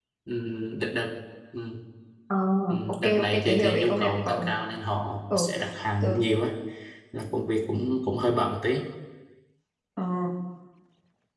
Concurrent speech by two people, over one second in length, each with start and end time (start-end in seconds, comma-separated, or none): 2.9-4.5